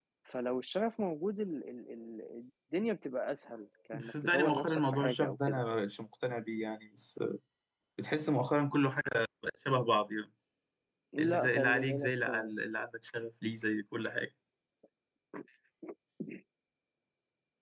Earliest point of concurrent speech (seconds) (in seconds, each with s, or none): 4.0 s